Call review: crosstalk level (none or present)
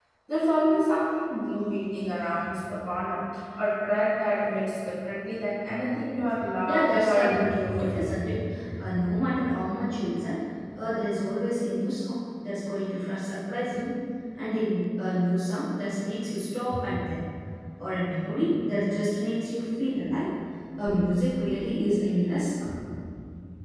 present